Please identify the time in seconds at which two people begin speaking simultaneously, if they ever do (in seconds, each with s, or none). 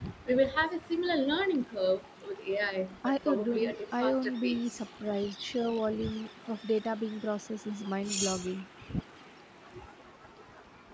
3.0 s